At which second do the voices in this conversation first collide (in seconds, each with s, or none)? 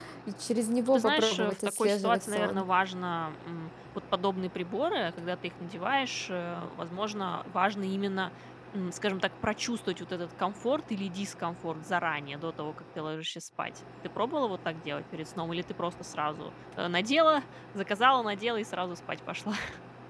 0.9 s